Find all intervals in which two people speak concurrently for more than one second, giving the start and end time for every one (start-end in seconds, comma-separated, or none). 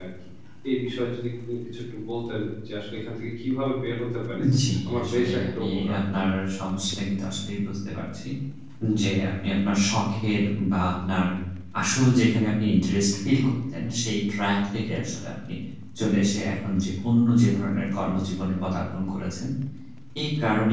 4.9-6.2